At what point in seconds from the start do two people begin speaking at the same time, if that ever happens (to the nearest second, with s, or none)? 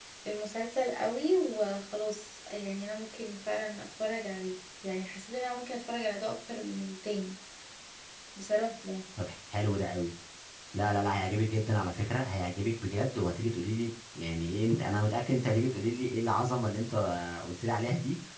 none